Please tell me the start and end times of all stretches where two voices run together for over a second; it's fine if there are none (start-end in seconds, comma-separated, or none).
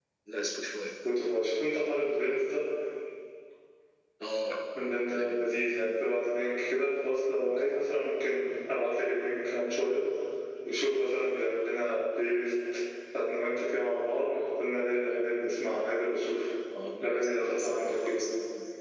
17.0-18.2